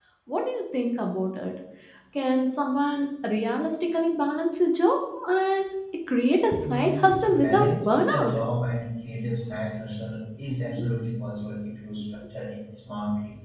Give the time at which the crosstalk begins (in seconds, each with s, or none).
6.7 s